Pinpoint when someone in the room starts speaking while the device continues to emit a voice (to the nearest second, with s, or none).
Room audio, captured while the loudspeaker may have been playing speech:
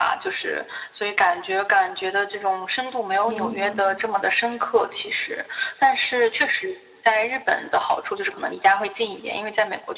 3 s